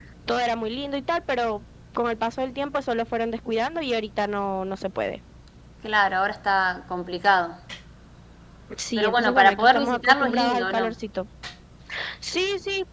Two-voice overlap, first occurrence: 9 s

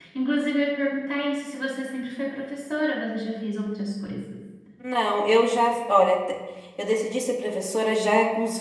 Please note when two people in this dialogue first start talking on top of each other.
none

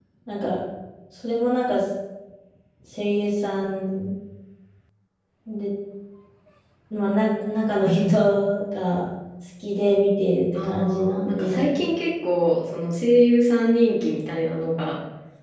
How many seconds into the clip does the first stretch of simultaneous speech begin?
11 s

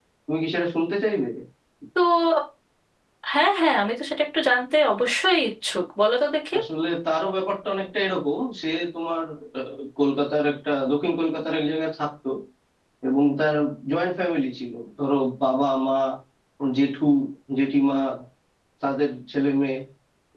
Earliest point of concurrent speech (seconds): none

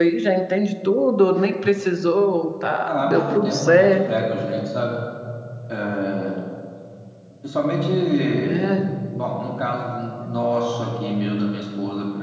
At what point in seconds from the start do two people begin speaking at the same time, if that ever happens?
3 s

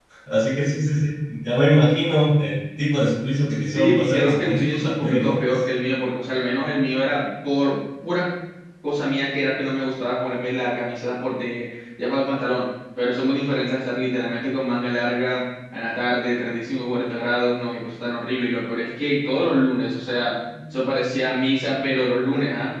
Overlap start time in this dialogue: 4 s

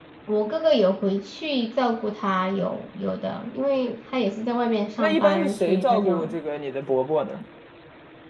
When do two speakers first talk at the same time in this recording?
5 s

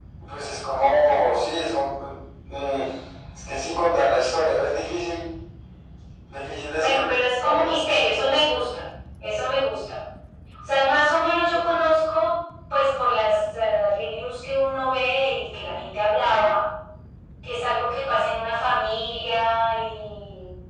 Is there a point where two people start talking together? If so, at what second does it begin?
7 s

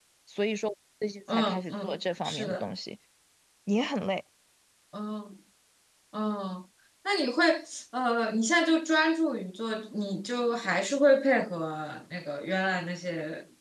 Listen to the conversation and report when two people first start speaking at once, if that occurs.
1 s

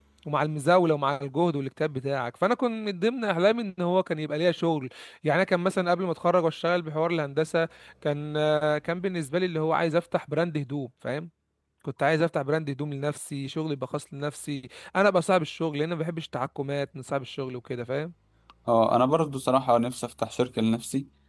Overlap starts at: none

